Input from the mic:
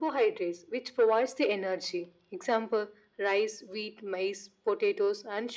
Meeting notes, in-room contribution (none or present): none